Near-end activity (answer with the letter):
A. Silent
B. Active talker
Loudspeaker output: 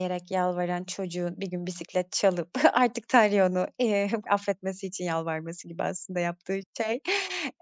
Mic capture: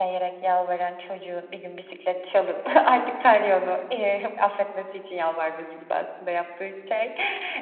A